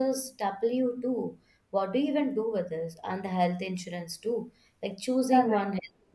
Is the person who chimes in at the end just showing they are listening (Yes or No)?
No